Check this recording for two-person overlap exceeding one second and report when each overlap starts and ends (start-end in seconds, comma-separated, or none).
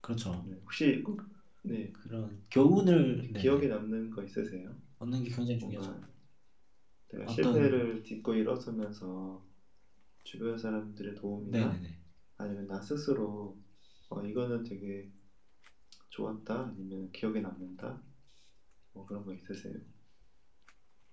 none